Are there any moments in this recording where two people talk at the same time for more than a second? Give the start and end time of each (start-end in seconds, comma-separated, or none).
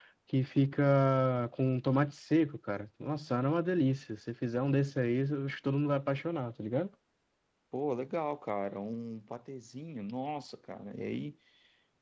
none